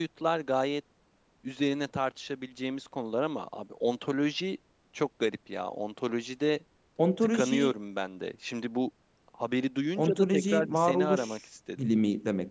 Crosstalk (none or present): present